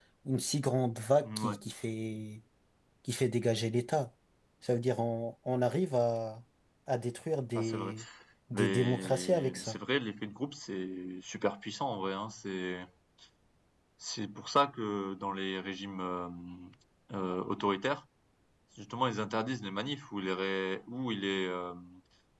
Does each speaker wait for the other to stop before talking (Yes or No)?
No